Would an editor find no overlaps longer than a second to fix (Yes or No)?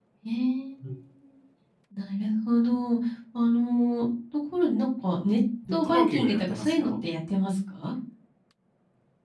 No